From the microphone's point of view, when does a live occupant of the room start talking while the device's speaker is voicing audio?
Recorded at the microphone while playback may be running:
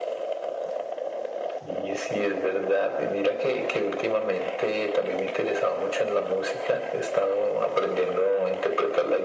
none

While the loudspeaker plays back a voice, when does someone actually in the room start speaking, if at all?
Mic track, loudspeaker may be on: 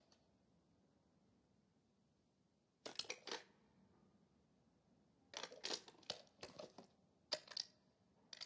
none

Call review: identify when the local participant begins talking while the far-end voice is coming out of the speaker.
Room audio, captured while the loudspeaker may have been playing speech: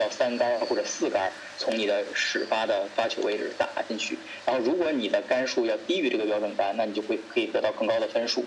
none

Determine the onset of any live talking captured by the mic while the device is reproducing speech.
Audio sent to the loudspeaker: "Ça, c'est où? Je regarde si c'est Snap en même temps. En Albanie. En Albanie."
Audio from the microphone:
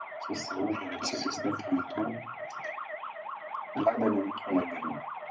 none

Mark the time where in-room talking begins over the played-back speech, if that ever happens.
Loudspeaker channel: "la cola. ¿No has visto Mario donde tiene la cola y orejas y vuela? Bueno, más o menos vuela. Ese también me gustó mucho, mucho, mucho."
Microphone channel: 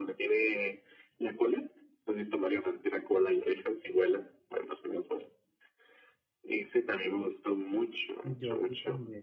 8.2 s

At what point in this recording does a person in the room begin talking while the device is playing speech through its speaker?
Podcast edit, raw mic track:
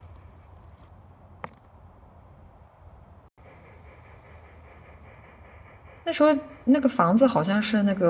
6.0 s

